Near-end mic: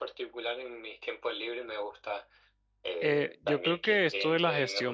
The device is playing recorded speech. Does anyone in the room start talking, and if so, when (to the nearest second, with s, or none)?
3 s